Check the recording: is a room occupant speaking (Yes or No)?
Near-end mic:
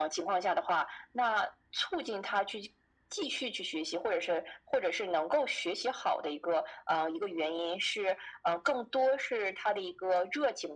No